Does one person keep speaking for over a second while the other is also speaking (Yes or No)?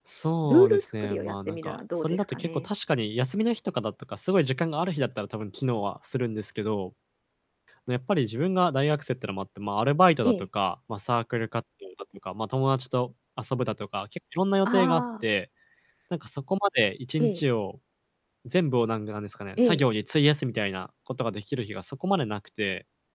Yes